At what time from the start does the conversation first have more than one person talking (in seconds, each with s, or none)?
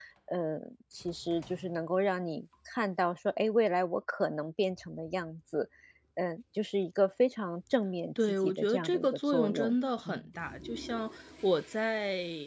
8.2 s